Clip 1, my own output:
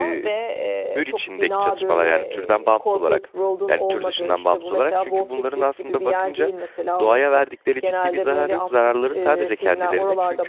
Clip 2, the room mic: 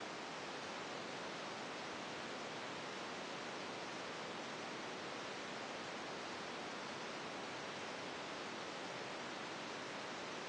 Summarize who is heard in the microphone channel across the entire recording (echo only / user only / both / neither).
neither